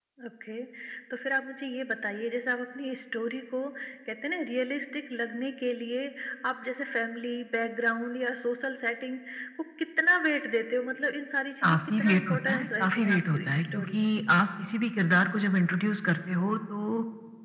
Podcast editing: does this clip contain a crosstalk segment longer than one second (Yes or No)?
Yes